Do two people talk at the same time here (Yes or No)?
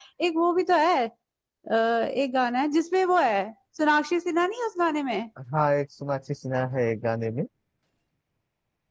No